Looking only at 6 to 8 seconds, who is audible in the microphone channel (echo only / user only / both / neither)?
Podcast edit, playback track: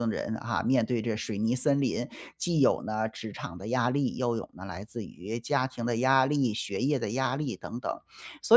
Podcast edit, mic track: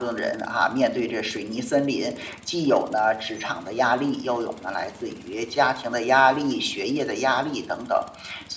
echo only